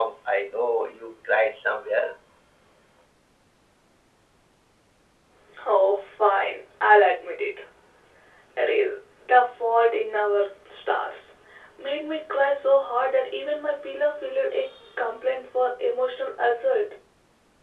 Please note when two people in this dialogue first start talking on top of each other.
none

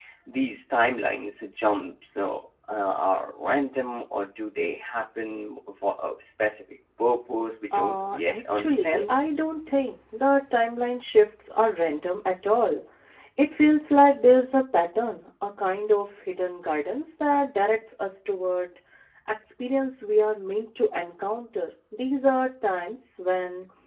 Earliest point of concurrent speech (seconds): 7.7 s

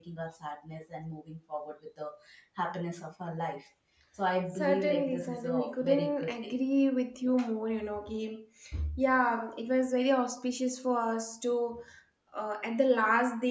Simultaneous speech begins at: 4.6 s

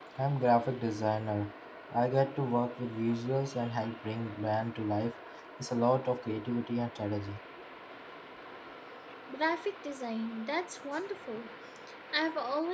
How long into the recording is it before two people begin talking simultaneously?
none

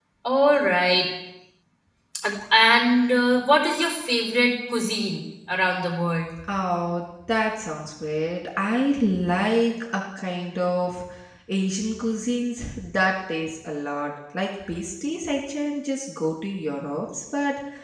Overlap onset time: none

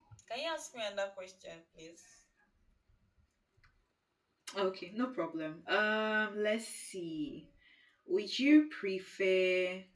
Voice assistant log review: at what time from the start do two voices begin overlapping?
none

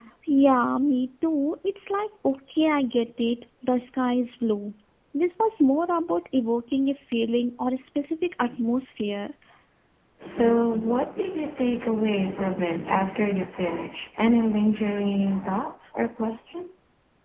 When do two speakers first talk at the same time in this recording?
none

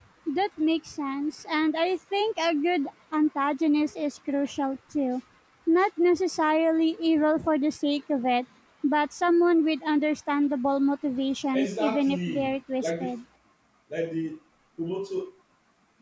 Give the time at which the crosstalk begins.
11.5 s

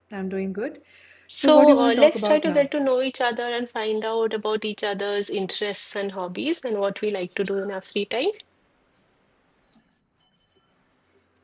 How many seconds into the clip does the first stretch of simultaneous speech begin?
1.4 s

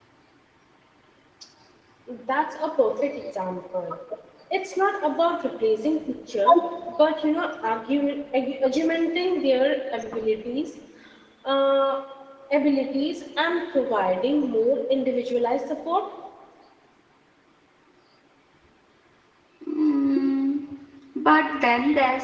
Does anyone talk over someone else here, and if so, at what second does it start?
none

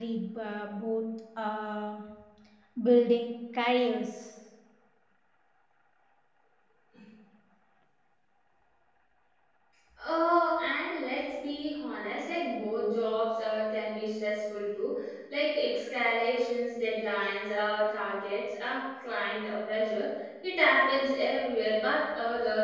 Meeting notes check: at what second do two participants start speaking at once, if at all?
none

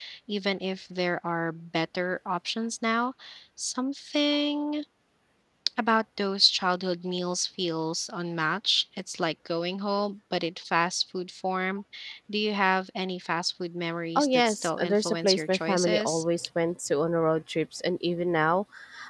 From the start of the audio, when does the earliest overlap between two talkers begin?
14.2 s

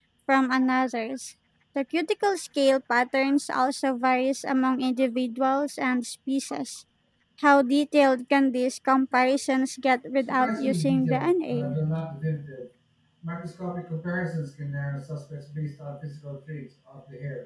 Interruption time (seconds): 10.3 s

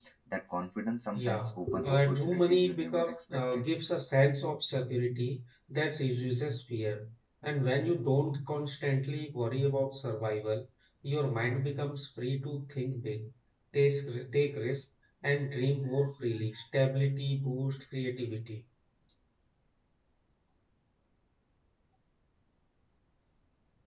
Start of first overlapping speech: 1.1 s

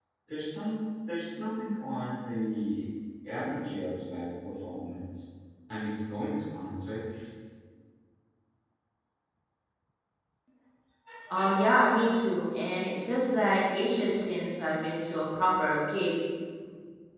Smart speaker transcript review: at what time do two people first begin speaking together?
none

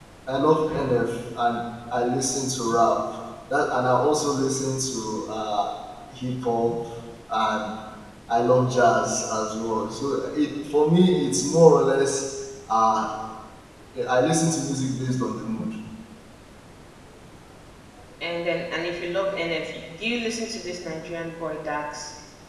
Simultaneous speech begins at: none

